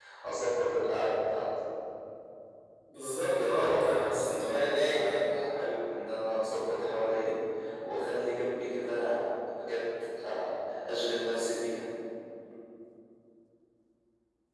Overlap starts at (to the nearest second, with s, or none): 3 s